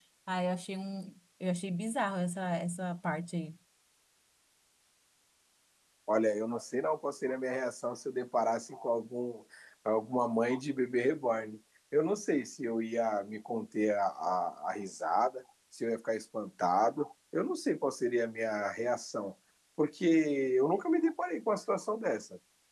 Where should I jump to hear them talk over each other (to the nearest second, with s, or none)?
none